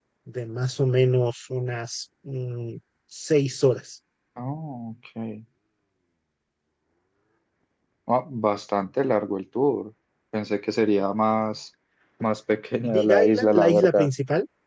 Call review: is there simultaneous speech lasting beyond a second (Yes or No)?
Yes